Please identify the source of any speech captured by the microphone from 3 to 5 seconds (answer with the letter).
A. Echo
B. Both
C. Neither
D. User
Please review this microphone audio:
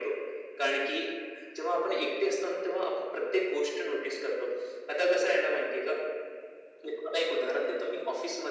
A